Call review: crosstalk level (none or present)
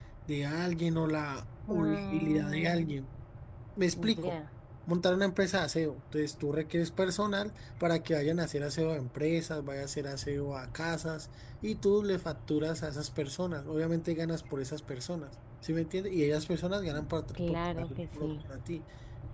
present